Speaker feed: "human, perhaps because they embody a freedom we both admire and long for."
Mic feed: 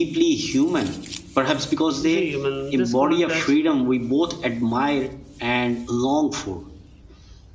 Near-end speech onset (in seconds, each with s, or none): 2.0 s